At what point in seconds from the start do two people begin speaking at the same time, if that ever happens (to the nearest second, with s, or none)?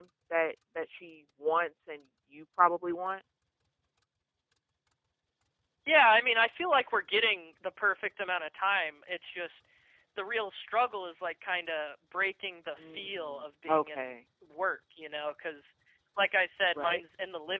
13 s